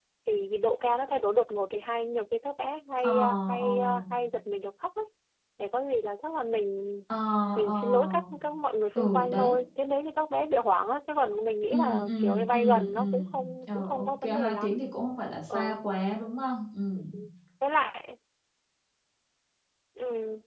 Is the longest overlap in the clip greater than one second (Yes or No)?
Yes